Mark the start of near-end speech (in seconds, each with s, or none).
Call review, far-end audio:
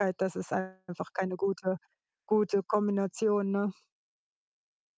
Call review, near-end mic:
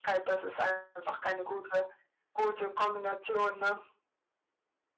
none